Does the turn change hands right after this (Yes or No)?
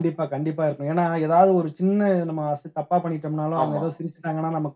No